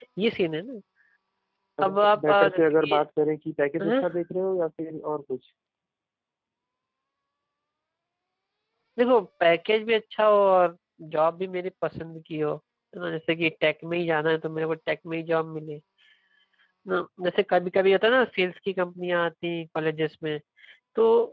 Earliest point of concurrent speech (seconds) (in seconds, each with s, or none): 1.8 s